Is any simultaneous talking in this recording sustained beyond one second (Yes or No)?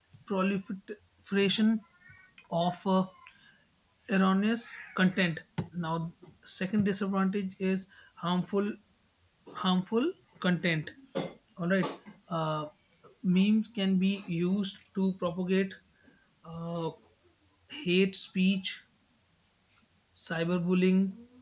No